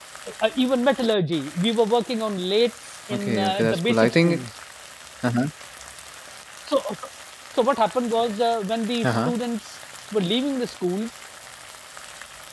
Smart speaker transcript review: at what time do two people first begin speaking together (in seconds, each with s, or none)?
3.1 s